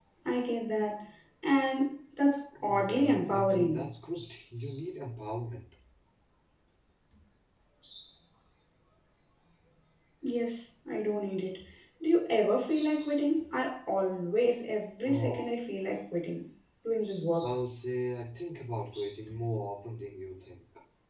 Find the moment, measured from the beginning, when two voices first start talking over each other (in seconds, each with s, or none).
2.7 s